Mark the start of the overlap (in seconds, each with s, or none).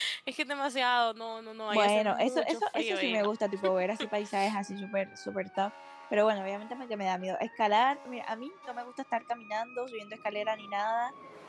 1.7 s